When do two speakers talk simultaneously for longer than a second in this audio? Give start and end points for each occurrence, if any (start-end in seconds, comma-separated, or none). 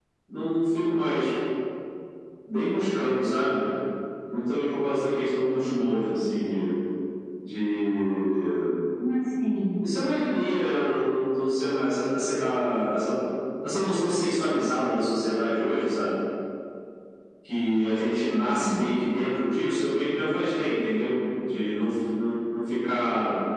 none